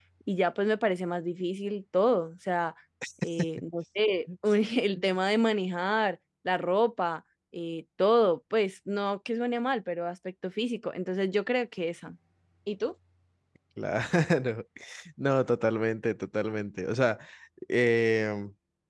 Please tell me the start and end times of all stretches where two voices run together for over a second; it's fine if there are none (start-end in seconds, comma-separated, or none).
none